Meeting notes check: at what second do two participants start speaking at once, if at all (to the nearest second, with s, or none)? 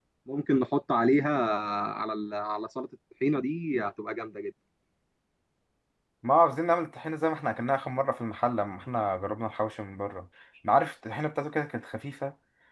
none